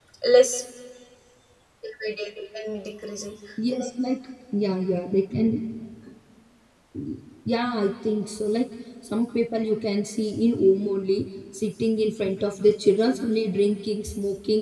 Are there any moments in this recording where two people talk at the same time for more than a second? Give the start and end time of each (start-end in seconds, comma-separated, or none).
none